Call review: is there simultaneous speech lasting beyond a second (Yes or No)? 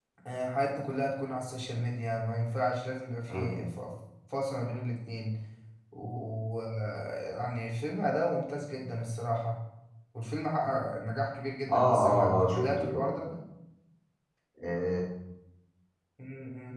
Yes